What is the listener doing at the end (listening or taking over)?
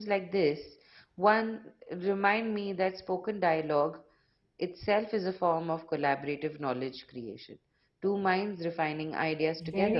taking over